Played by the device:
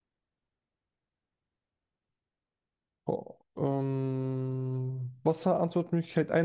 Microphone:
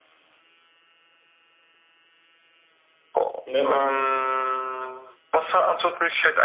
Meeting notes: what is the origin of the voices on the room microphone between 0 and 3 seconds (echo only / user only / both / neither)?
neither